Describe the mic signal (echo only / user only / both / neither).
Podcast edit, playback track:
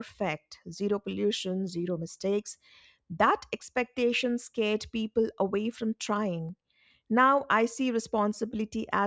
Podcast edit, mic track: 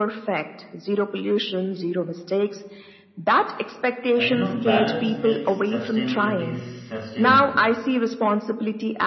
both